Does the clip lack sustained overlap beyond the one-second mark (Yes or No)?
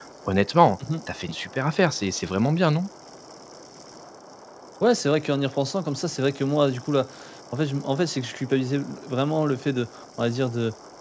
Yes